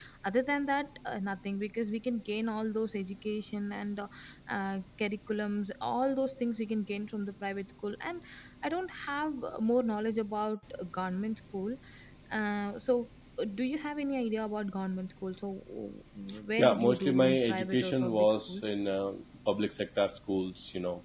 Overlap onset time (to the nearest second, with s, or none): 17 s